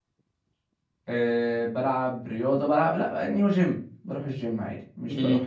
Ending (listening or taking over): listening